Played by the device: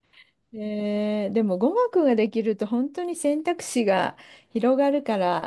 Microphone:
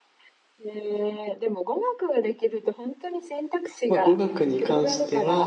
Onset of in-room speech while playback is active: 3.9 s

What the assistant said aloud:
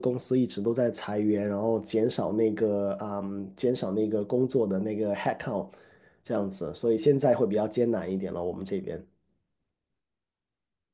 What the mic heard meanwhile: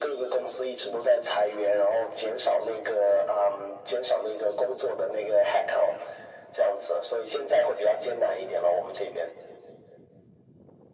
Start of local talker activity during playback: none

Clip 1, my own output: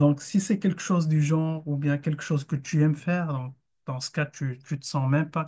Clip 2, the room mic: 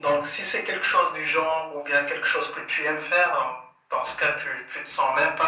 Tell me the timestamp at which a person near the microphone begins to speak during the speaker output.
none

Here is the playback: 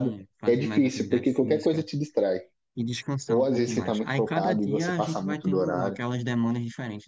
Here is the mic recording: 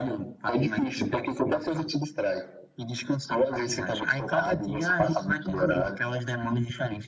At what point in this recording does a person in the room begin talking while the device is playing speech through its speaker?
none

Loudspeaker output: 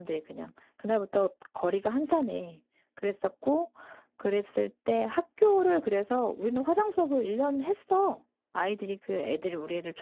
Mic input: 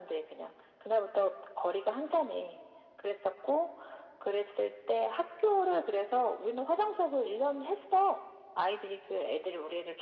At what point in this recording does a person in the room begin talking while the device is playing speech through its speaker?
none

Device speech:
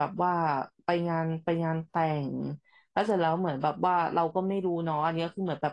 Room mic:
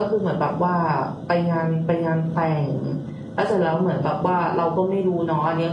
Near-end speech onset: none

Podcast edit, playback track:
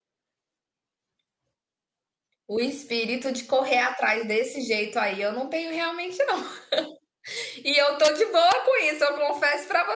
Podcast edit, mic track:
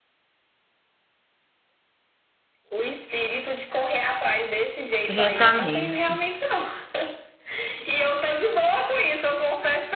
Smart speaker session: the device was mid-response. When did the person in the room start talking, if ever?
5.1 s

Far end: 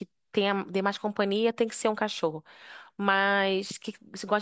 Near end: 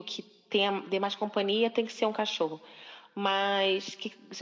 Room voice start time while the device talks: none

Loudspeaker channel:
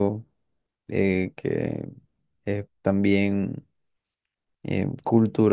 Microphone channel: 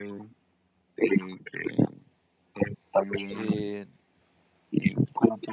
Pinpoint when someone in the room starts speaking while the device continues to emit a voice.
3.3 s

